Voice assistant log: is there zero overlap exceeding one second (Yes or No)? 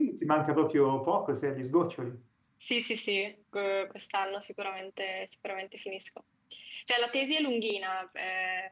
Yes